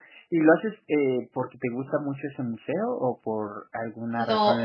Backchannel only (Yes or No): No